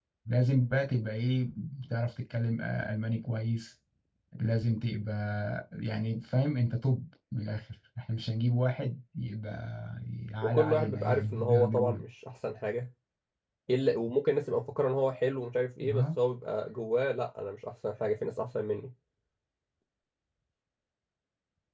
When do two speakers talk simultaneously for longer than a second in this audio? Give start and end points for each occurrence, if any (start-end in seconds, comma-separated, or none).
10.4-12.0